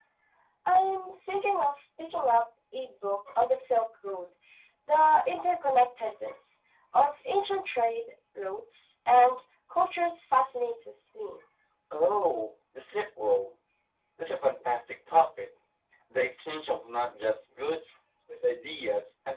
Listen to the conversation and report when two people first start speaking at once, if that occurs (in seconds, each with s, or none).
none